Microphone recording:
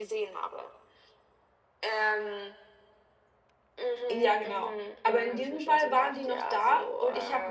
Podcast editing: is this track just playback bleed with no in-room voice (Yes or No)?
No